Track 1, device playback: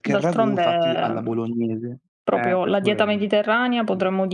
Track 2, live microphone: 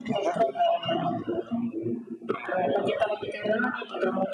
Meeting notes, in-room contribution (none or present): none